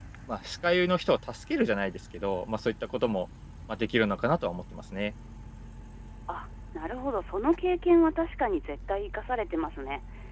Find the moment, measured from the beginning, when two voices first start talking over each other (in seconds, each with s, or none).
none